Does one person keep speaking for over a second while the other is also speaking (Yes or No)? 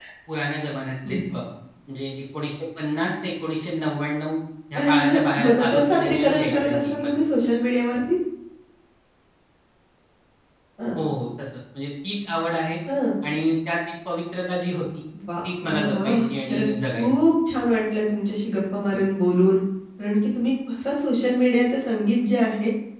Yes